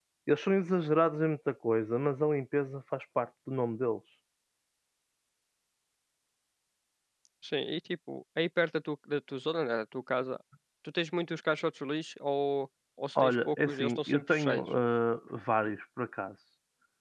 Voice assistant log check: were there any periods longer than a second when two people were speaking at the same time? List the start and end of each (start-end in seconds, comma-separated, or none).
13.2-14.7